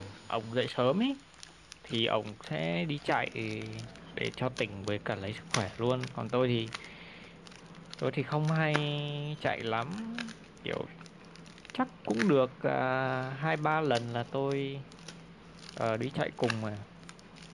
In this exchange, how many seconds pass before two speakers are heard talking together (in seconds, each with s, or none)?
none